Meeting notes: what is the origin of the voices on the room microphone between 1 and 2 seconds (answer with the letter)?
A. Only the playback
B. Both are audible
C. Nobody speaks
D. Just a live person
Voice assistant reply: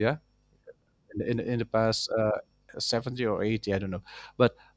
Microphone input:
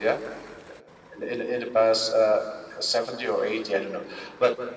A